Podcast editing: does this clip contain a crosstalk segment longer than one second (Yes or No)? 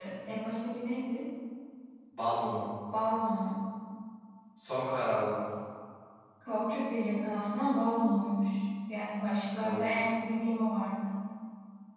No